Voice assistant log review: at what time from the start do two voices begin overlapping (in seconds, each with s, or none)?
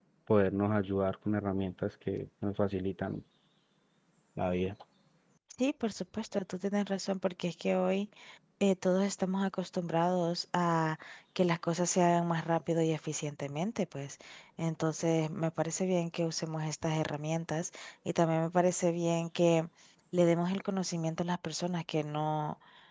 none